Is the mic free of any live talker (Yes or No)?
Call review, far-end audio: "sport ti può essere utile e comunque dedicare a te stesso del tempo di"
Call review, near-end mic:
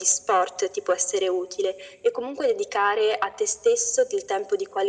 Yes